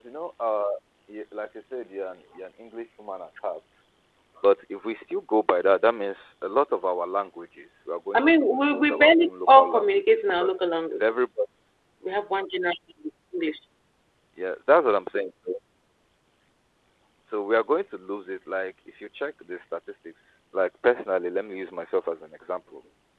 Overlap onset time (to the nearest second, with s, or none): 8 s